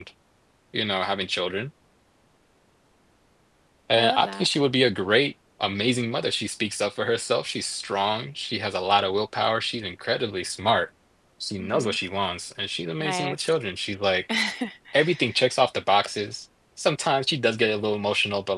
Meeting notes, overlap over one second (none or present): none